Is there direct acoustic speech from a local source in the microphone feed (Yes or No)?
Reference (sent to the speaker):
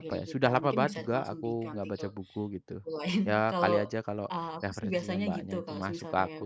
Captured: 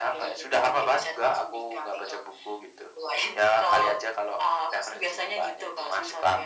No